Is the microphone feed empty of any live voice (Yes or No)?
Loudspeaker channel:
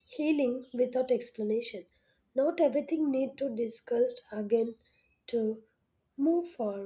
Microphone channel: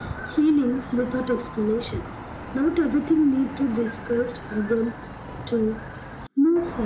Yes